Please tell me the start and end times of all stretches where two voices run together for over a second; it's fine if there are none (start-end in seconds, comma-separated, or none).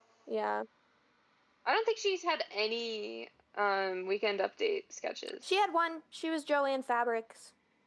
none